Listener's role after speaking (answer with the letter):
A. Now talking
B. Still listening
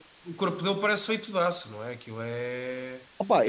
A